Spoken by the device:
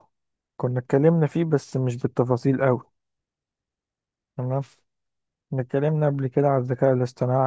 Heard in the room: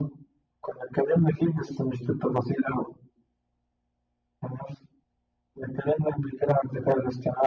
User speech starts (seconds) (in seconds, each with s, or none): none